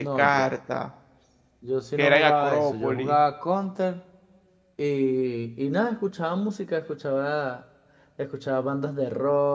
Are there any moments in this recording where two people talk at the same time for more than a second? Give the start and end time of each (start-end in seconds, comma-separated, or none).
2.0-3.2